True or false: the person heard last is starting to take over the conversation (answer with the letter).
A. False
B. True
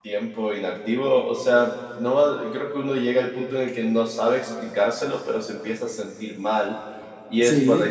A